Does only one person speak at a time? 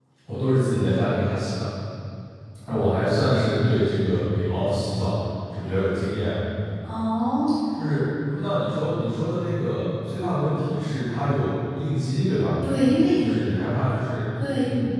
Yes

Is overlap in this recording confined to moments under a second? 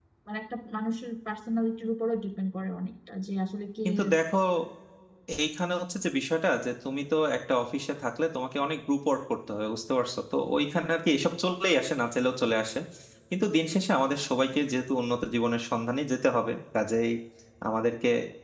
Yes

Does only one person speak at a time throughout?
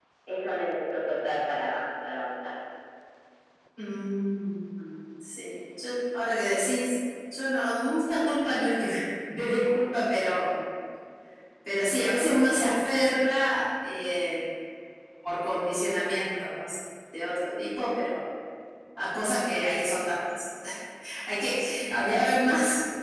Yes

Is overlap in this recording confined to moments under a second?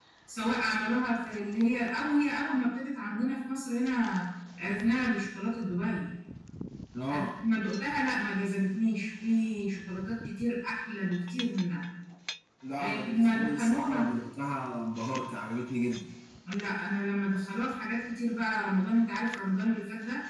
No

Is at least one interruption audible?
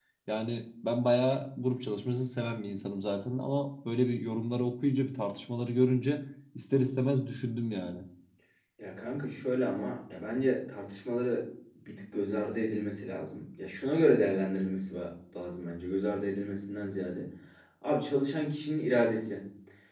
No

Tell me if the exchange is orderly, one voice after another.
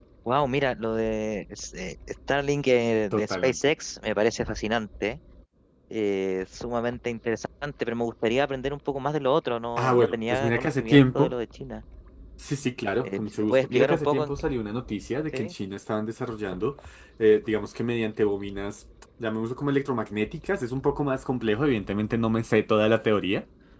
No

